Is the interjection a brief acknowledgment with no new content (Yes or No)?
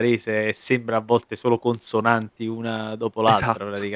No